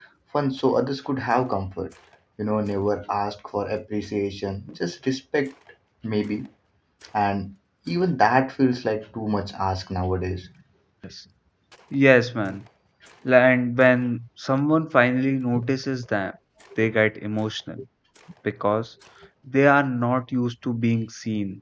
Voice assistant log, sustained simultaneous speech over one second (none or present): none